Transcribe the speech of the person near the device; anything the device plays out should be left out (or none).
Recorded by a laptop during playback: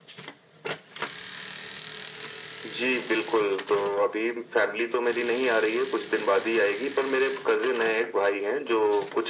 none